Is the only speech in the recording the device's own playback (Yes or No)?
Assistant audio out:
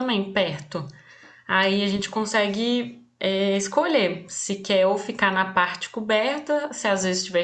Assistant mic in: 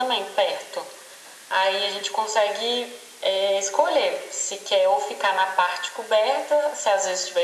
Yes